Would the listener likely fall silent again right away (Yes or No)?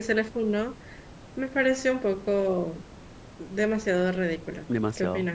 No